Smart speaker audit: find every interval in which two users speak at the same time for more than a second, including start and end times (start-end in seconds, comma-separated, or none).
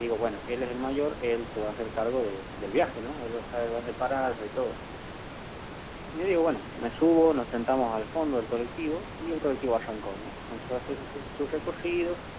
none